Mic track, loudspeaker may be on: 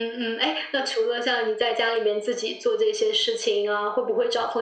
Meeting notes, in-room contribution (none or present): none